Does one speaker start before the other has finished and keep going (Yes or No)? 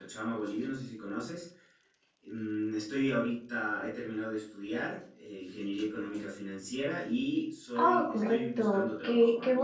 Yes